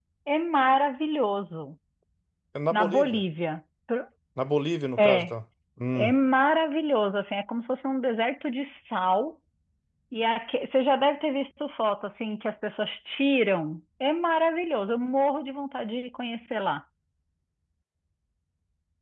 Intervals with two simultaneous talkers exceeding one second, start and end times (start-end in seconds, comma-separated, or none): none